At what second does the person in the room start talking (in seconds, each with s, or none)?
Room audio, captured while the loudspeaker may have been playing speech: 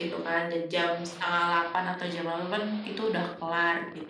none